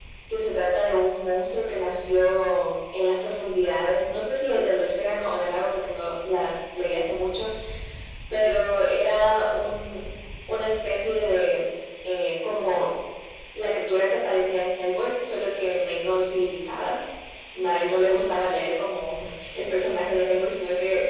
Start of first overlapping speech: none

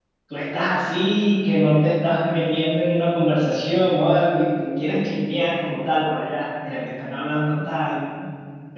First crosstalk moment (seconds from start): none

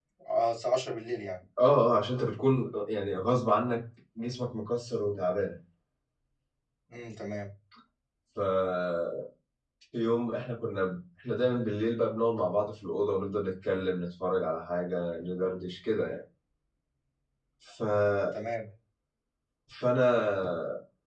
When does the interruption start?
none

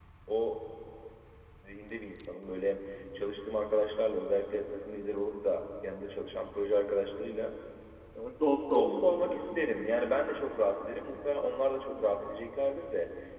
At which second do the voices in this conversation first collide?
9 s

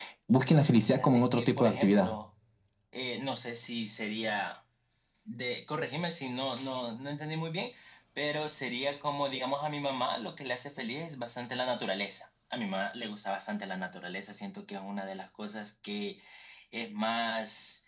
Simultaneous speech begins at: 1 s

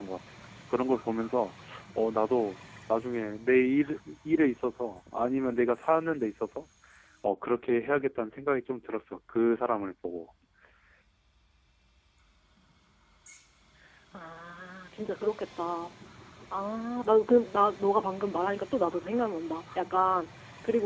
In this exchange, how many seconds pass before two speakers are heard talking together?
none

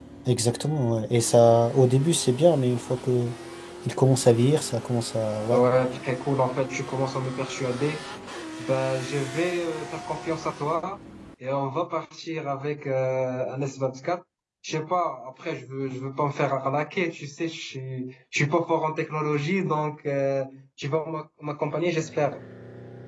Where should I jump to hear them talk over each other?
none

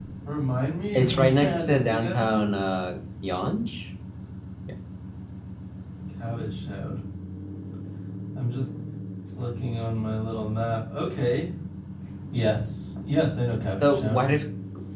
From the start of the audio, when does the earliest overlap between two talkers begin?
1 s

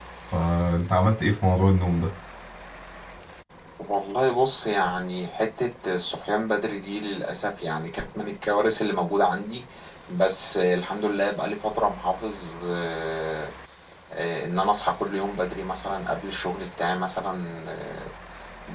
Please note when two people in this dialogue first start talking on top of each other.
none

